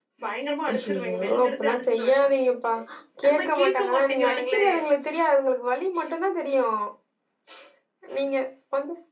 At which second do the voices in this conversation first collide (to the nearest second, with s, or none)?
1 s